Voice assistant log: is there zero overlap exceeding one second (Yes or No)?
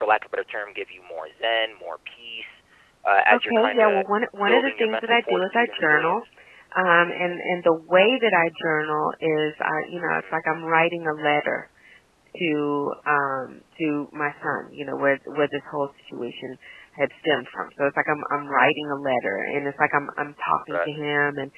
No